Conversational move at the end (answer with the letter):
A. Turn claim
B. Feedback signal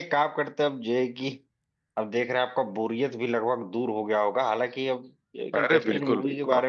B